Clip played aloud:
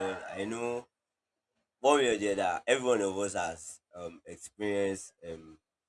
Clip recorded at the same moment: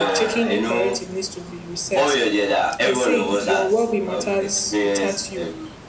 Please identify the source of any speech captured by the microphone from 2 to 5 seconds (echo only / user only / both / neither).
both